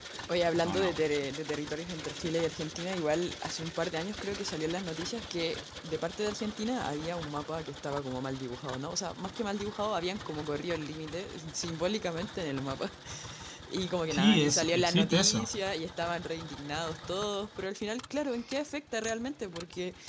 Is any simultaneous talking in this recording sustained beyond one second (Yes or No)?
Yes